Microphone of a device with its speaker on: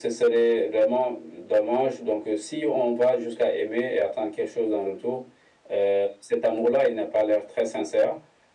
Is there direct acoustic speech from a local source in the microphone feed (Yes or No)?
No